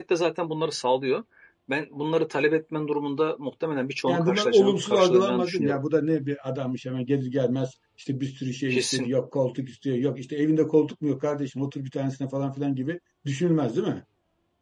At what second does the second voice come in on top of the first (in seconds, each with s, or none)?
4.1 s